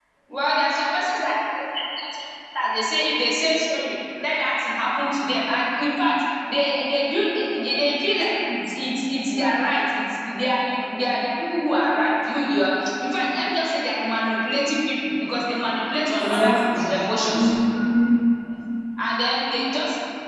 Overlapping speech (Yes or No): Yes